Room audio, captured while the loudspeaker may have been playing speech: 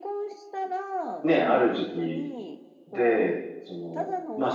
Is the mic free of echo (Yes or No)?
No